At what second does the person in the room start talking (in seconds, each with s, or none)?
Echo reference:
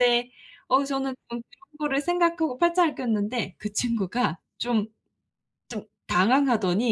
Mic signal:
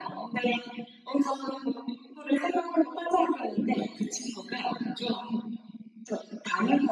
none